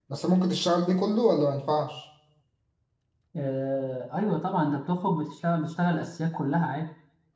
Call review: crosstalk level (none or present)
none